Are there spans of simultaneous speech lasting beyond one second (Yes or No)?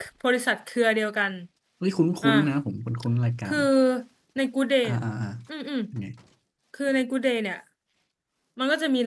No